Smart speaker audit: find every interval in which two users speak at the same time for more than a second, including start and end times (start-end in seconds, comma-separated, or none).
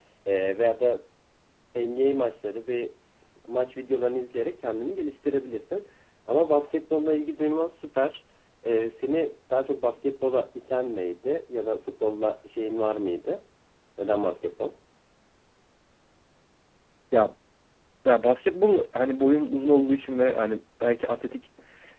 none